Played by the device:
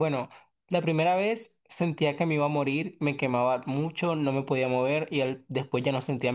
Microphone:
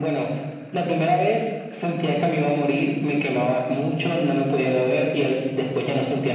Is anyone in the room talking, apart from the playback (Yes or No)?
No